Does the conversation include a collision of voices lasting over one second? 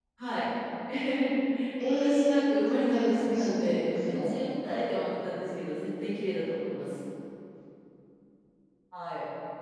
Yes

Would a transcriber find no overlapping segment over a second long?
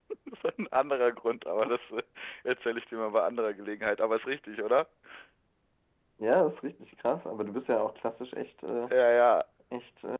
Yes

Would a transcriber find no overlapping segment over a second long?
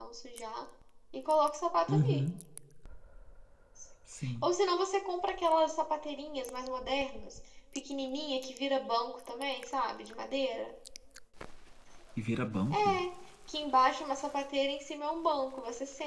Yes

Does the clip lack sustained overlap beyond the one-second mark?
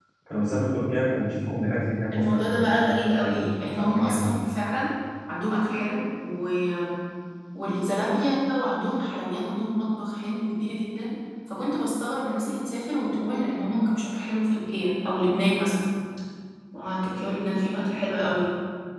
No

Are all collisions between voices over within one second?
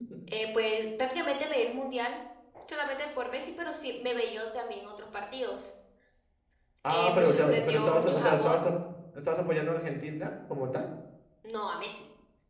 No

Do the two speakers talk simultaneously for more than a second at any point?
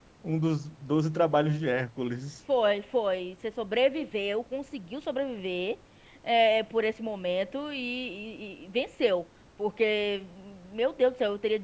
No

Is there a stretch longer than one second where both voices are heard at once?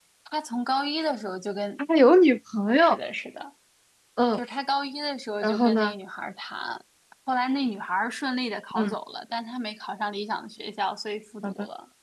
No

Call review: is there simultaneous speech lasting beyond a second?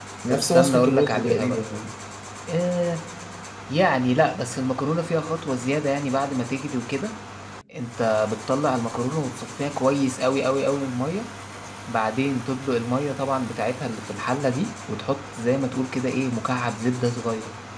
Yes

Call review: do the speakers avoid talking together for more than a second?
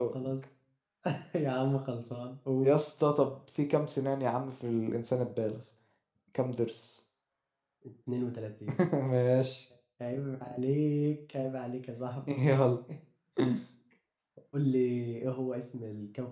Yes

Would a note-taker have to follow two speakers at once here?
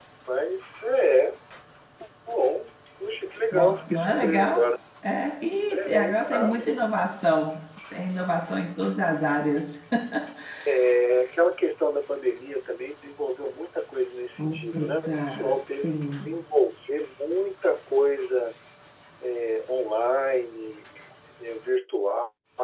Yes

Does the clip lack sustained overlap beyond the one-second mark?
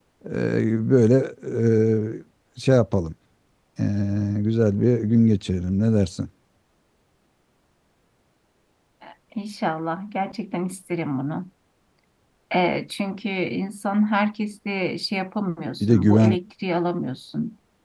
Yes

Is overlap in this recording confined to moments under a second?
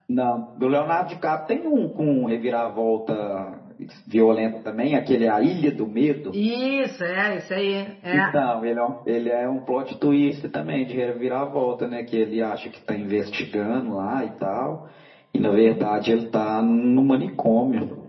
Yes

